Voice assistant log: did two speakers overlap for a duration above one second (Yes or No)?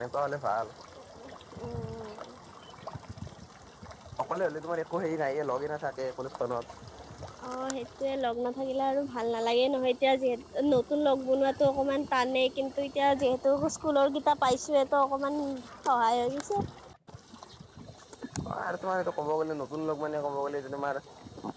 No